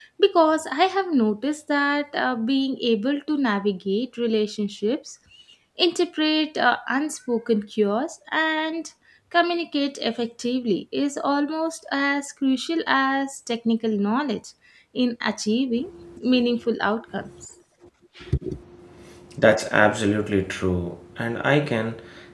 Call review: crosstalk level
none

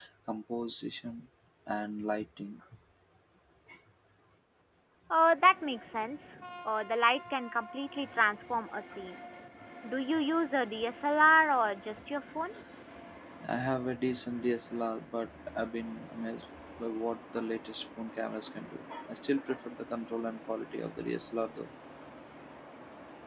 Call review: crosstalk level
none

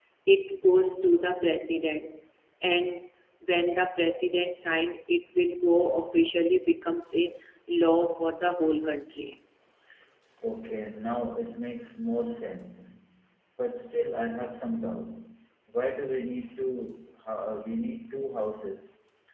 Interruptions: none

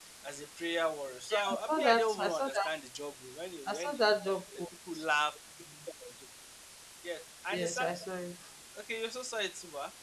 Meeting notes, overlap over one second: present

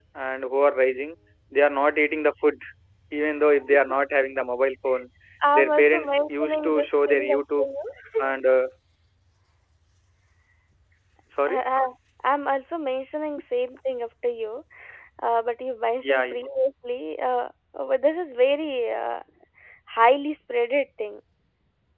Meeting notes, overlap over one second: present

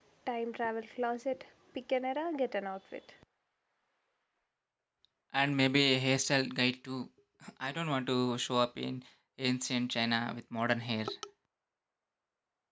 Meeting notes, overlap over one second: none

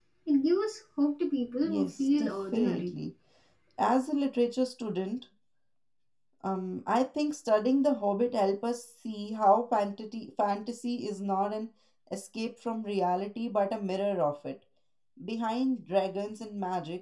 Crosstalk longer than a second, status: present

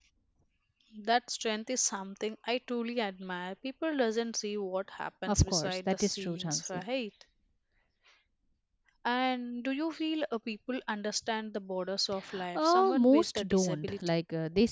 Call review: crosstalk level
present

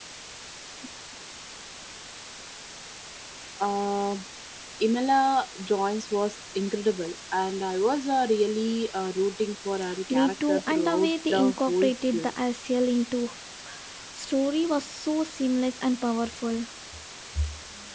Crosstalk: present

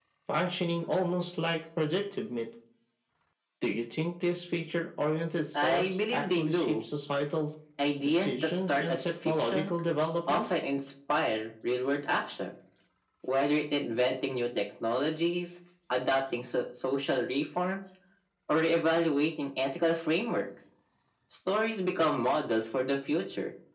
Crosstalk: present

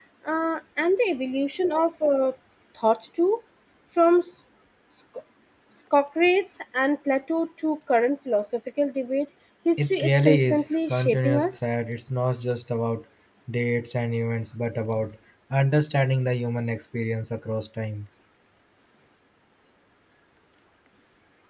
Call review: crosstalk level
present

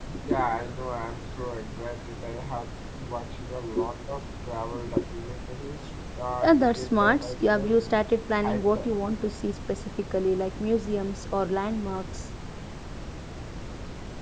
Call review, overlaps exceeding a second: present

